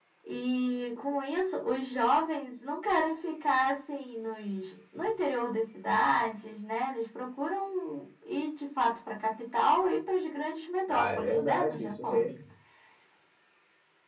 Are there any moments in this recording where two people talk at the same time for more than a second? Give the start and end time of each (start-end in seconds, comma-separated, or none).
10.9-12.2